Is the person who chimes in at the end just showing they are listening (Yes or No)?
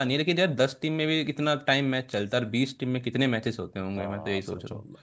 No